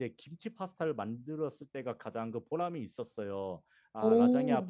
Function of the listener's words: listening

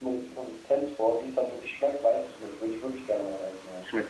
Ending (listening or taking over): taking over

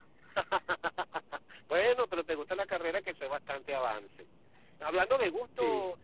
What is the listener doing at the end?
listening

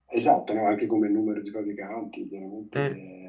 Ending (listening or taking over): listening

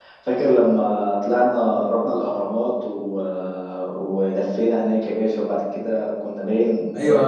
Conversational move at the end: taking over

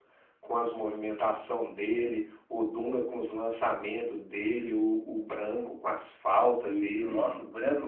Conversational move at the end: taking over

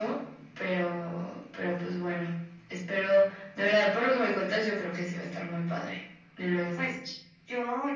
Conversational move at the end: taking over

